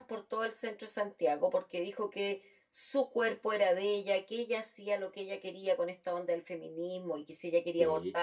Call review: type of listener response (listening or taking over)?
listening